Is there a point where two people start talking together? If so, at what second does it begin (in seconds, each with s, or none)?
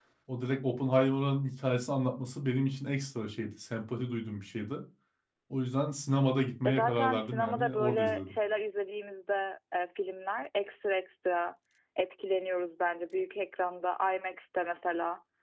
6.7 s